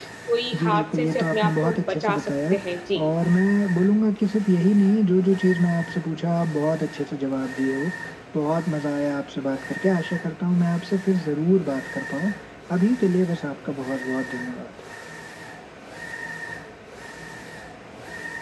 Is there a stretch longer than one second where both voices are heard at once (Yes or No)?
Yes